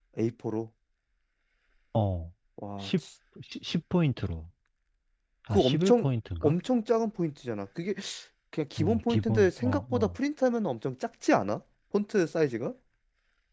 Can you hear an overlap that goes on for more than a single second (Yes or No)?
Yes